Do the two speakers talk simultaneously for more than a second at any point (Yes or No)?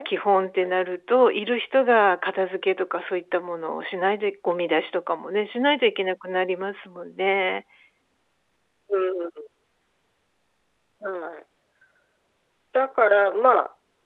No